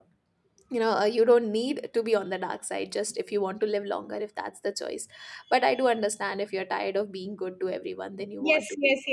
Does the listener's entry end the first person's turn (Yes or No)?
Yes